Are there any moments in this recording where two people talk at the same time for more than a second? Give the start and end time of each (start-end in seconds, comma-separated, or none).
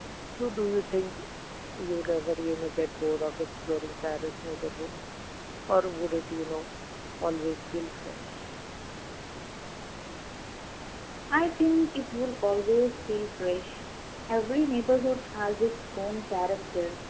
none